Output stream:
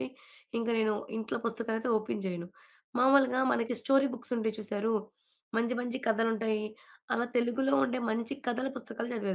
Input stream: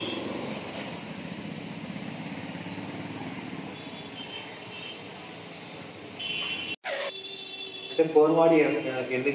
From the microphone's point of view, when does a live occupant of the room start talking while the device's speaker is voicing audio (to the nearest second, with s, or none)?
8 s